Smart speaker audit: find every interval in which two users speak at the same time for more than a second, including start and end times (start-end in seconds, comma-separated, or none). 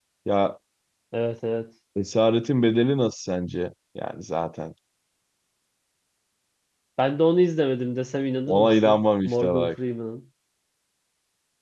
8.5-9.8